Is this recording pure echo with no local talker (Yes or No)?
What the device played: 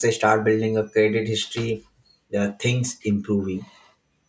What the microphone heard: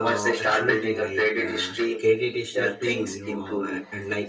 No